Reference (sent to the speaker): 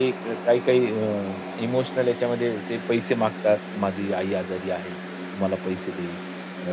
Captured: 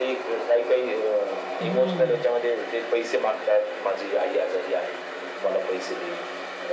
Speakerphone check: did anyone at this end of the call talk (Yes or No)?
Yes